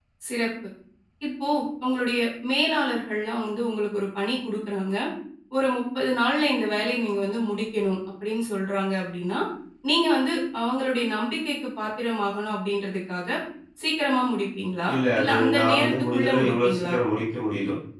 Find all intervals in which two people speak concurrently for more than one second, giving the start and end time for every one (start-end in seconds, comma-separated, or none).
14.9-16.9